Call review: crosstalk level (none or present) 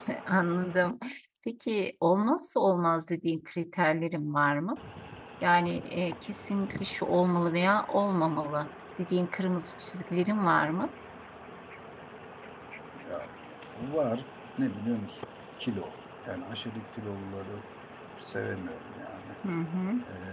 none